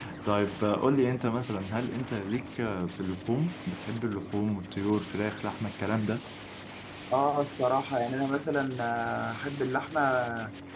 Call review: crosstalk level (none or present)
none